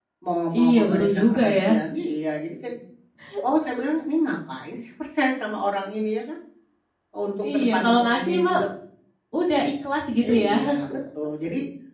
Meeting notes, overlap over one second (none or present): present